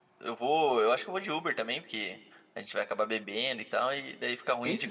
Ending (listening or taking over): taking over